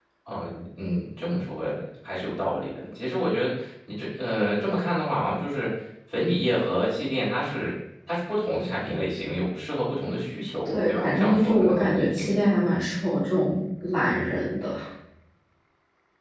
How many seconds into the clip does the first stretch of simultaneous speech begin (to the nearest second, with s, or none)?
11 s